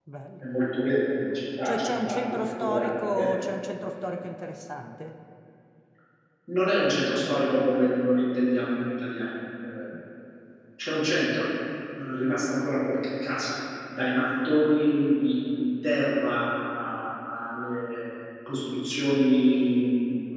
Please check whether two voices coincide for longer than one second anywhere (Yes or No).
Yes